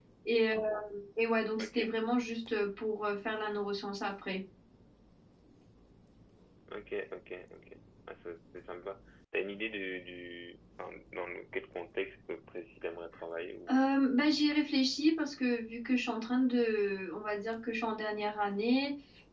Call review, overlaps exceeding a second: none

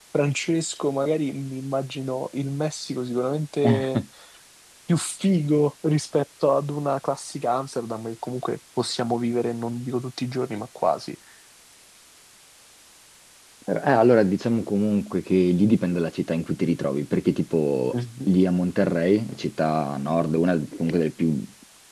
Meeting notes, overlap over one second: none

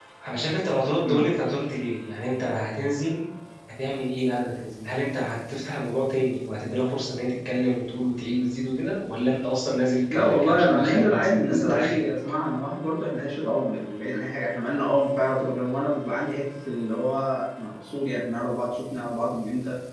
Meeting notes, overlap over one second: present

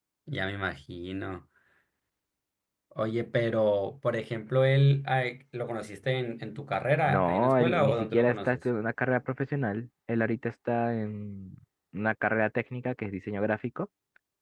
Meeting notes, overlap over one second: present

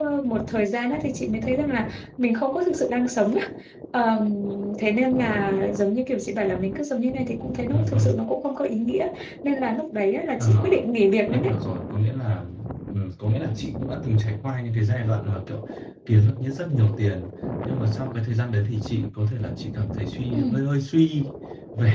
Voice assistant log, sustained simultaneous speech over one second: none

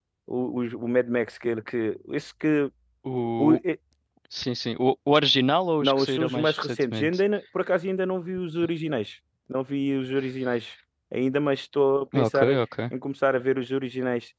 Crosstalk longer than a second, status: present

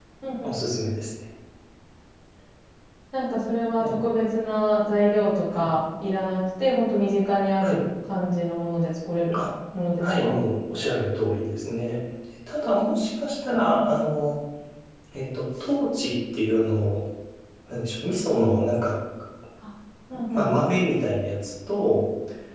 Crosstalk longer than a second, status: none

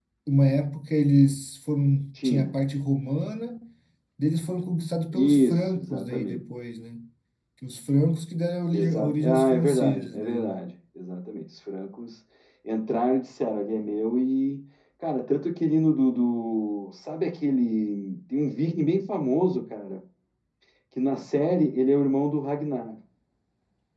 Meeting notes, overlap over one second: present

